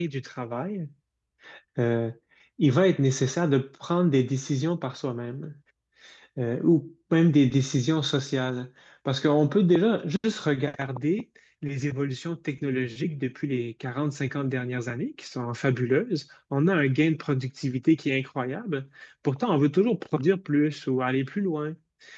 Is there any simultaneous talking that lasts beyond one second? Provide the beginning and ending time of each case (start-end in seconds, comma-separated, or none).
none